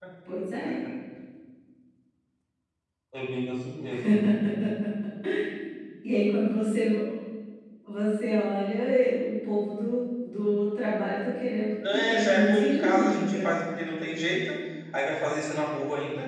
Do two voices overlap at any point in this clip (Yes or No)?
Yes